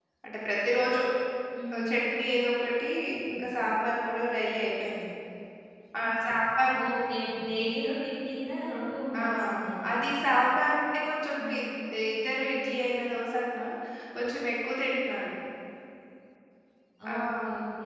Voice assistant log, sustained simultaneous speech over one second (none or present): none